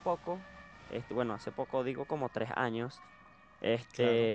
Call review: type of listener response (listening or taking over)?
listening